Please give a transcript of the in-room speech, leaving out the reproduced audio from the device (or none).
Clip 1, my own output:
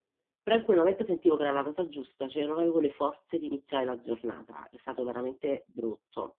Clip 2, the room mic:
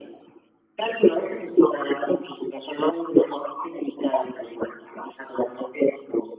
none